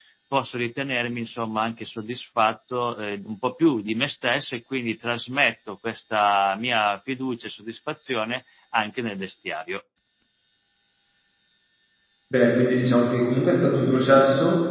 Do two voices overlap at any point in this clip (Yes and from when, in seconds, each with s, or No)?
No